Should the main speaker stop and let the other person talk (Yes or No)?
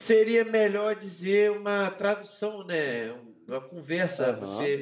No